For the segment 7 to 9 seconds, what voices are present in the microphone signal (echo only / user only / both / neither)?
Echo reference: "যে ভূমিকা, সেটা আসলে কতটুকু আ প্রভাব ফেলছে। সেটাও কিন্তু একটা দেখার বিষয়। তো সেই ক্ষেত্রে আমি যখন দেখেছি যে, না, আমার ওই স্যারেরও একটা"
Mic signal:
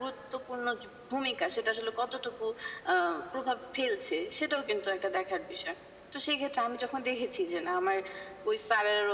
echo only